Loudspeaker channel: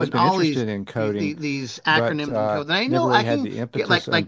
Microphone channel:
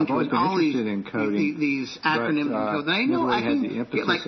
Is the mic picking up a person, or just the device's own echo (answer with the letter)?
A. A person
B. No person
B